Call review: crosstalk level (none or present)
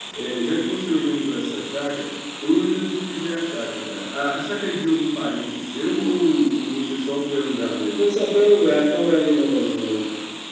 none